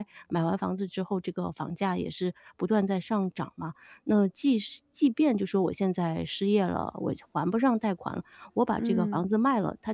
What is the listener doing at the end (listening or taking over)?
listening